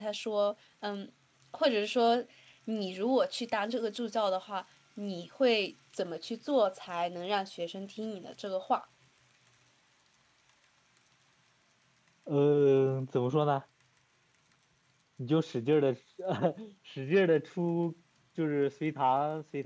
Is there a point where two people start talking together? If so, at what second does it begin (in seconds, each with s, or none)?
none